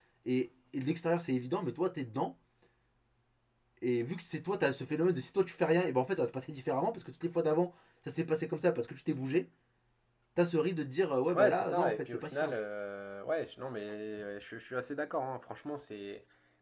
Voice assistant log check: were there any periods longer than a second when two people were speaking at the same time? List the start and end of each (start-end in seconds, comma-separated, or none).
11.3-12.6